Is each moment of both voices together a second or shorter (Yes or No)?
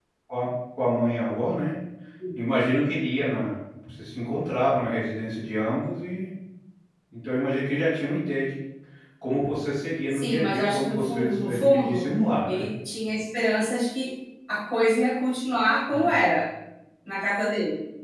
No